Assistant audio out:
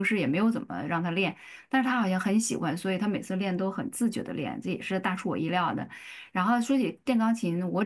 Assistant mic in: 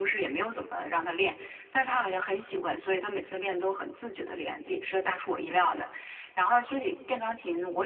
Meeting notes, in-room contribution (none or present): none